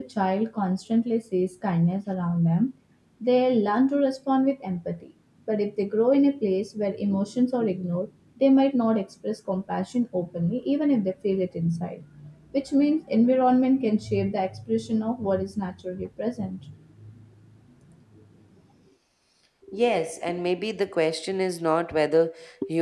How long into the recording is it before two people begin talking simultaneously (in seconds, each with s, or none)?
none